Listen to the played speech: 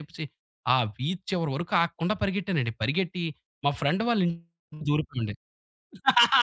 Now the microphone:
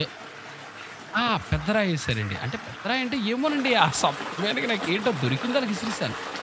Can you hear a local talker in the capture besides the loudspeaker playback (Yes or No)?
Yes